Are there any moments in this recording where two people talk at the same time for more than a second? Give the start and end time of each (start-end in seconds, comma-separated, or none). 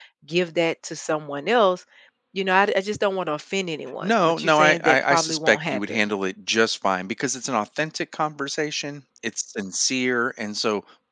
4.0-6.0